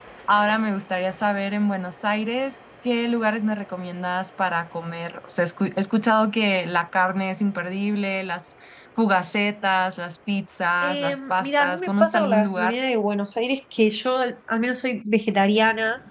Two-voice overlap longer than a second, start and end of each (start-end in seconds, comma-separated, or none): 10.8-12.8